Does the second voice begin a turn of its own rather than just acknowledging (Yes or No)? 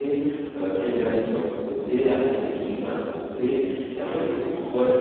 No